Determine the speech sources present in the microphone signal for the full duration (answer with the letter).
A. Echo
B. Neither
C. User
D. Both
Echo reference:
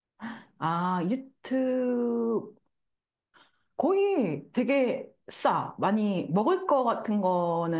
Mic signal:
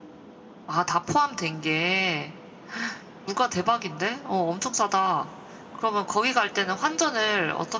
C